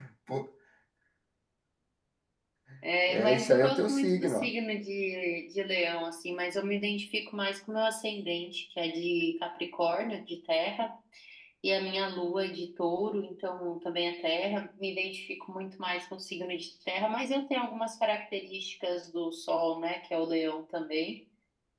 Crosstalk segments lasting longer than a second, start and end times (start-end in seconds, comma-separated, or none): 3.1-4.5